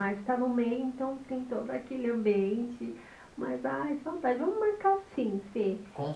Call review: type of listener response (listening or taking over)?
listening